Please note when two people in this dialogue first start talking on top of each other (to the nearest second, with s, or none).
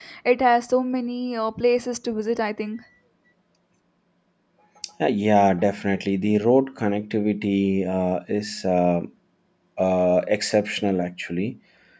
none